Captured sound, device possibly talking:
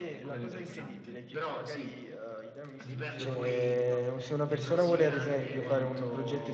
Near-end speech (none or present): present